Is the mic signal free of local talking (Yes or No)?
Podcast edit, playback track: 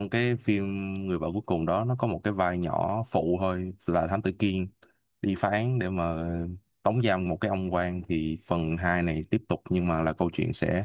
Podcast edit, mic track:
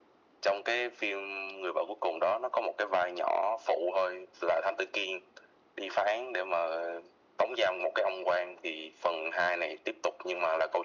Yes